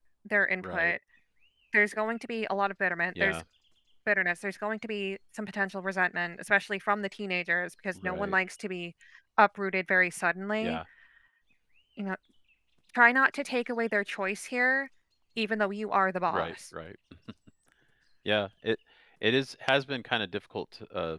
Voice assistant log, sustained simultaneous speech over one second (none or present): none